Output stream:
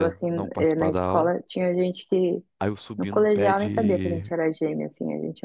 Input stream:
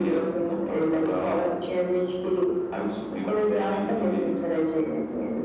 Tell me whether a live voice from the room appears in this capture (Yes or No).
No